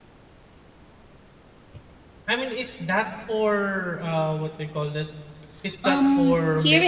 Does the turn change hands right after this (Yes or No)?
Yes